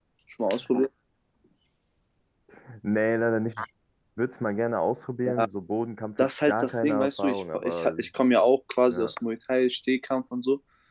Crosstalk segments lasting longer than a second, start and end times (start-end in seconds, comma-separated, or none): 6.2-8.1